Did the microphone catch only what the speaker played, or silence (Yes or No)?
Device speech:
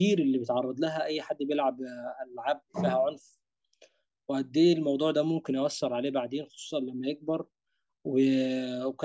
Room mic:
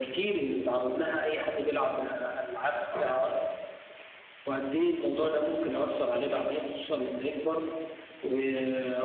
Yes